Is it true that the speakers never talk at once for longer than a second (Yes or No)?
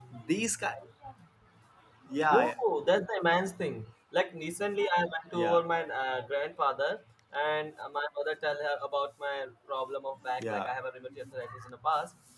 Yes